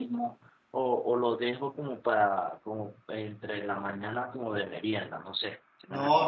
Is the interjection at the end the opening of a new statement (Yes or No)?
Yes